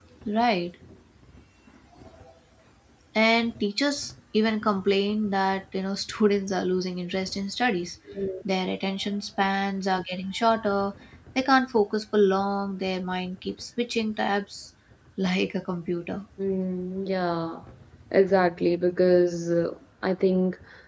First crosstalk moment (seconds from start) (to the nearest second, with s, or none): none